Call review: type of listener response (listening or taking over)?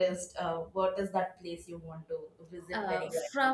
taking over